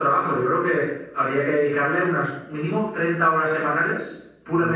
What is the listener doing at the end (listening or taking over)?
taking over